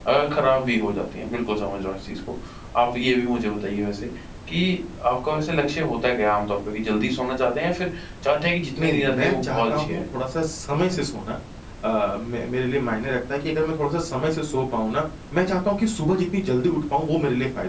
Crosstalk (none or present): present